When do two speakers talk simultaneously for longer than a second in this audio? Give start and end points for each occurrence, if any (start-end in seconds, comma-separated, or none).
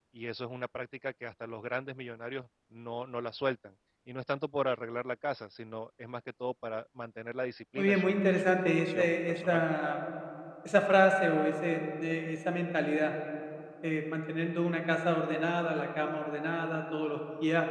7.8-9.6